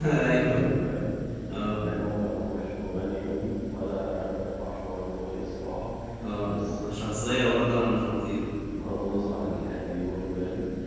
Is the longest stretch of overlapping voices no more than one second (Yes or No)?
Yes